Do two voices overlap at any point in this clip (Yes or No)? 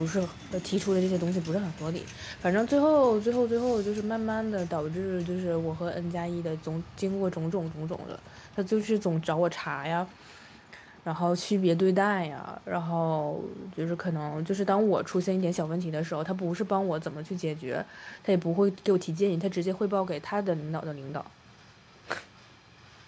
No